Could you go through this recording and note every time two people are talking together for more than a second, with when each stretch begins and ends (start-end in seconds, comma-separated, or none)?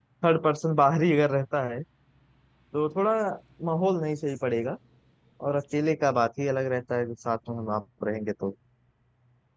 none